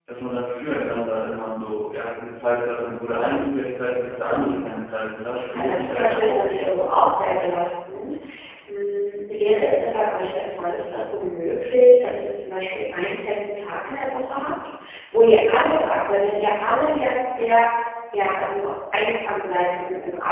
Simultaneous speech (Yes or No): Yes